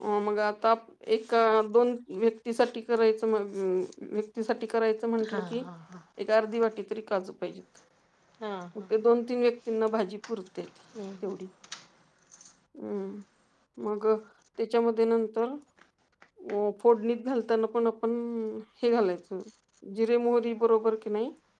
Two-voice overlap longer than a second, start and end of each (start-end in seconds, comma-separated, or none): none